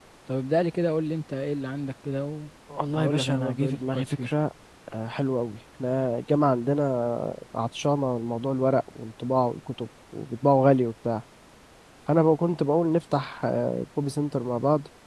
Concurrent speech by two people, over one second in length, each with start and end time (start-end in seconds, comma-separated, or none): 3.0-4.3